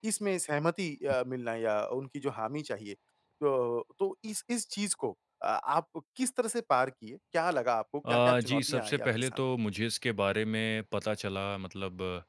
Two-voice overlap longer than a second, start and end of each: 8.1-9.4

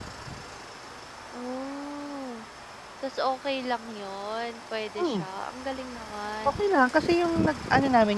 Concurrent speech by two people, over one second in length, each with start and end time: none

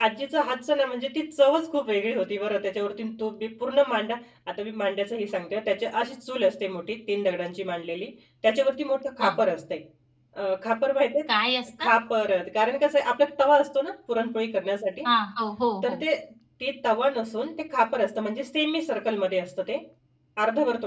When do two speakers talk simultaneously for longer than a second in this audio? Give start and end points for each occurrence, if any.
none

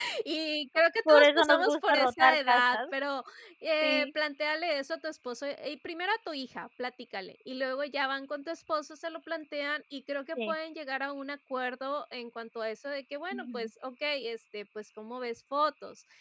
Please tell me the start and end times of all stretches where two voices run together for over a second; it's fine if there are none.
1.1-2.9

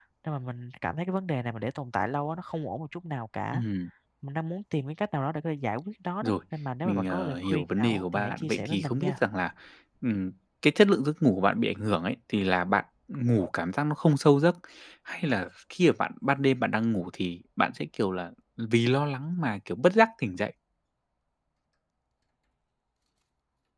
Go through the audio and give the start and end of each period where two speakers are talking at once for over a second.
6.8-9.2

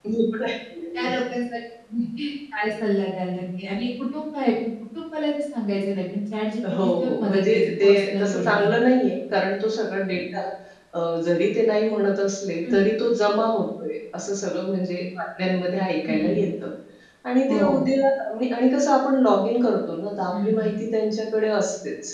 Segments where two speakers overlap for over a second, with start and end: 6.7-8.7

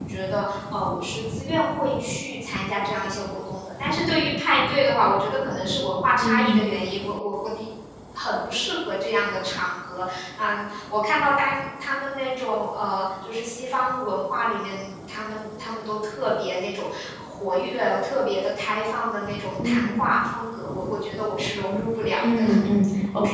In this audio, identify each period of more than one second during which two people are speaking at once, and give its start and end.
none

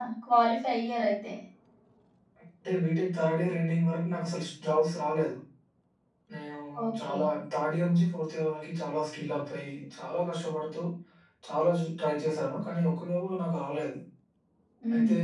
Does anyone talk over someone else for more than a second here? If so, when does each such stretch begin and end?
none

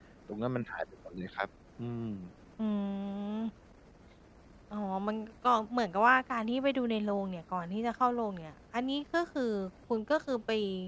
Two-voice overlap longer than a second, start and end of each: none

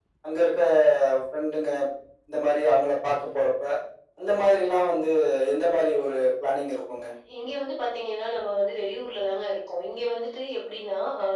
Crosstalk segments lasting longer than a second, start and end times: none

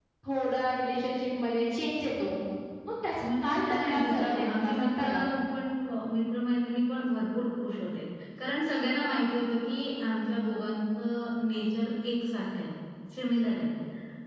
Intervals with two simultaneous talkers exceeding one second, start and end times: 3.4-5.0

